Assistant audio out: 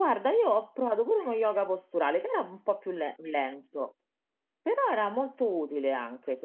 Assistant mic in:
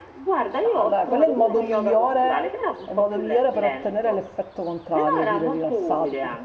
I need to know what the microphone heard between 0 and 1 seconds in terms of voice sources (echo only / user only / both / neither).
both